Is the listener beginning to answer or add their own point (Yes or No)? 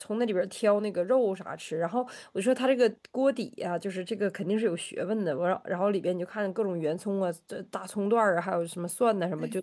No